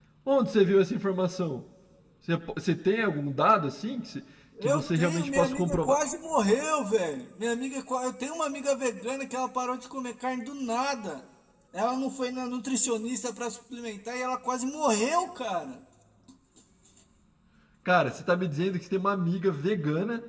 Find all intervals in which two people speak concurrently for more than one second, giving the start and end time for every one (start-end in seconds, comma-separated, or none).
4.6-6.0